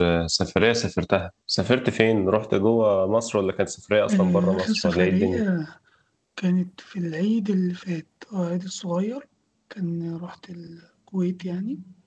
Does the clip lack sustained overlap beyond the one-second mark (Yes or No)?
No